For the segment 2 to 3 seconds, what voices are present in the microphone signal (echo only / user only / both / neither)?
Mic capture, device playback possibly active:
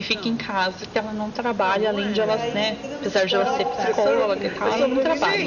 both